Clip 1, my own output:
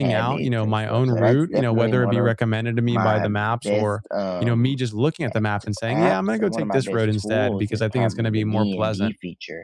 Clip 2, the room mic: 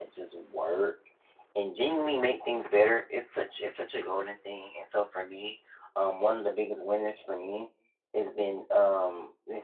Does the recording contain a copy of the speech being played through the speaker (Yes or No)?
No